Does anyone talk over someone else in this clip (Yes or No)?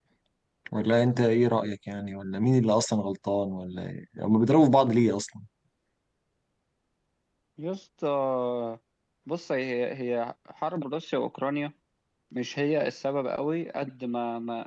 No